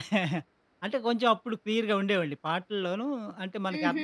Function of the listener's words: listening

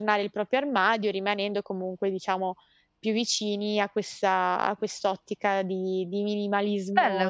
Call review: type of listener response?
taking over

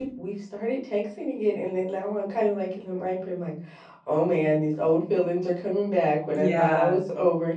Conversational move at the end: listening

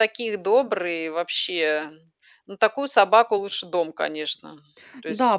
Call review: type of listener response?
taking over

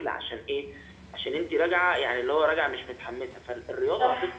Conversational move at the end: listening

